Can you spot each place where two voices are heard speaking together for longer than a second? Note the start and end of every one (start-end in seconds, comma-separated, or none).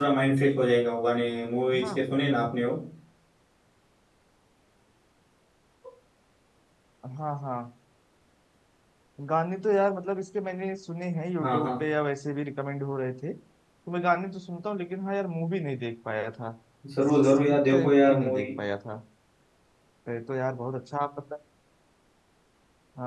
17.1-18.5